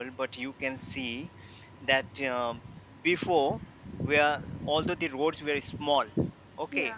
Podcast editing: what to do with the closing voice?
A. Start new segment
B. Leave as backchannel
B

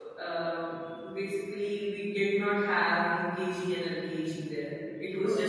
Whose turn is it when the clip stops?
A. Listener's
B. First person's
B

